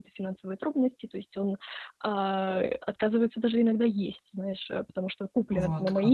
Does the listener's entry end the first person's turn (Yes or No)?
No